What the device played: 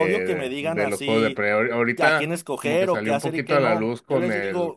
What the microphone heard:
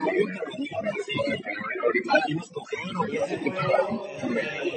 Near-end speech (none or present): present